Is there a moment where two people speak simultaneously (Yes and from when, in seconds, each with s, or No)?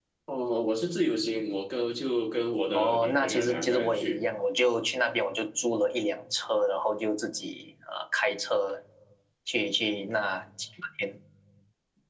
Yes, from 2.7 s